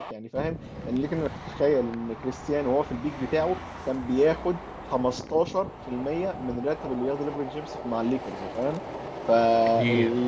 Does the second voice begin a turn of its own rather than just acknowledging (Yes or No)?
No